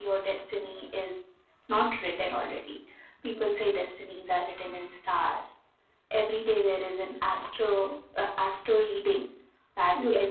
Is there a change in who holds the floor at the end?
No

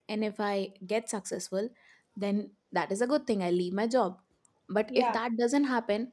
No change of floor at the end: Yes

